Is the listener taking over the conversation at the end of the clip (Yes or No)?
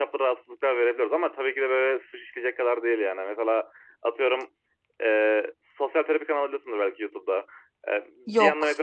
No